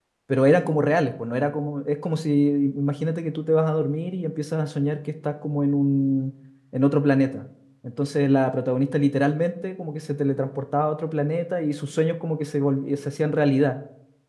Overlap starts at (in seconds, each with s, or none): none